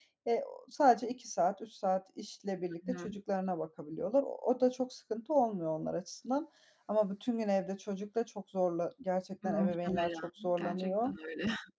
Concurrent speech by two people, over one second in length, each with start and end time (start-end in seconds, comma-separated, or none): 9.6-11.1